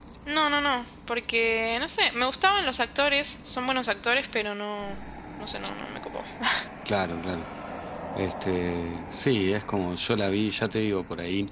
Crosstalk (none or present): none